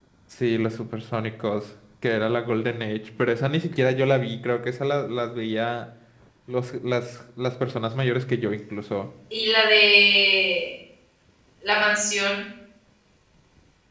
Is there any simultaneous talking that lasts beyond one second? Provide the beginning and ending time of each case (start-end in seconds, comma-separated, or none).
none